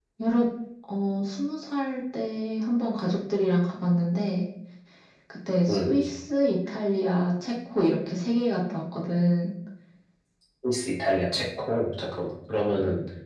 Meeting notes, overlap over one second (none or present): none